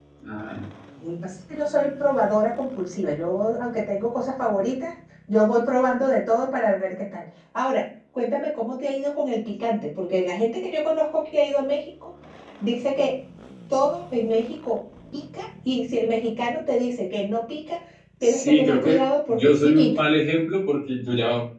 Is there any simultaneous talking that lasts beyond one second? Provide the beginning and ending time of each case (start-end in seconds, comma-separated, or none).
18.2-20.0